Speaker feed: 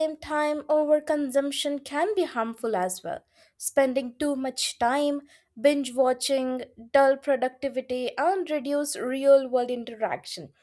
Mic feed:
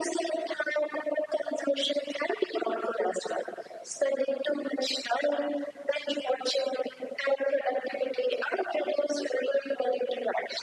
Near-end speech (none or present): none